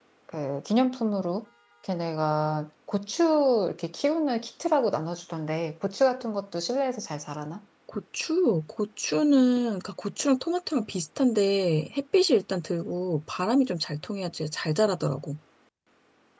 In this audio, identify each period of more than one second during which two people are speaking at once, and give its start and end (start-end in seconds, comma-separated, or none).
none